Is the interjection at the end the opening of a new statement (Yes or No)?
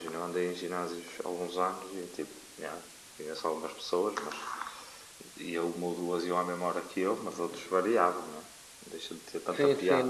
Yes